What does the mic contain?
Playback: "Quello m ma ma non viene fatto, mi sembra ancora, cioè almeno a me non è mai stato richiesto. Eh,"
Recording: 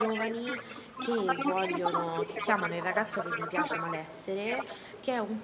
both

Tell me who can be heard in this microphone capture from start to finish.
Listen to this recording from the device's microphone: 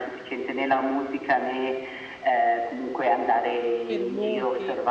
both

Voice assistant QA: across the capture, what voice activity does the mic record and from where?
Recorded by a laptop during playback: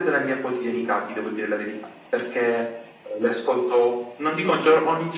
echo only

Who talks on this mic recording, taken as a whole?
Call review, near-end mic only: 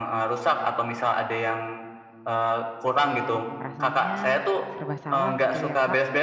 both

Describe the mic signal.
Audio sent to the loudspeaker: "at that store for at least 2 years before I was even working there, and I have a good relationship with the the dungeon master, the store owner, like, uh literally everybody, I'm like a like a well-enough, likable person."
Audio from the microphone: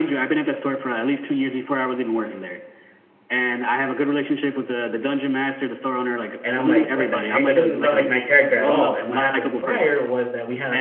both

